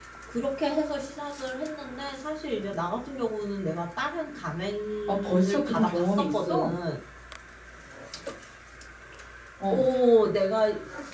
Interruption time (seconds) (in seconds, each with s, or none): 5.1 s